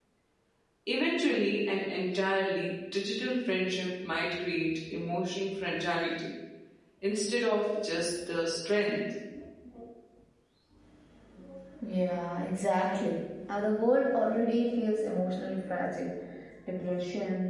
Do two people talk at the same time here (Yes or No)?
No